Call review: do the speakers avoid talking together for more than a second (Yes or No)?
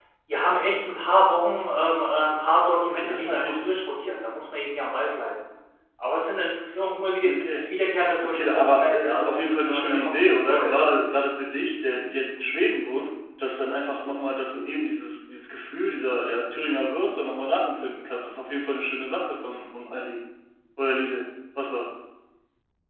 No